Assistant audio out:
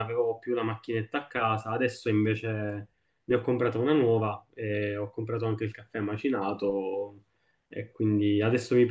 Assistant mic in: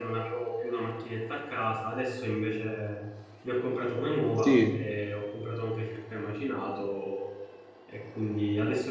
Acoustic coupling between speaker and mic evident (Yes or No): Yes